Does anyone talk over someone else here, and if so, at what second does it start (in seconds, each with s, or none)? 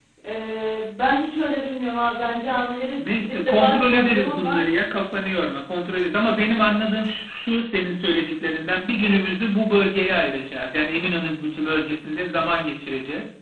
3.0 s